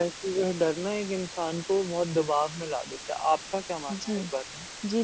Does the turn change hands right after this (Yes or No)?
Yes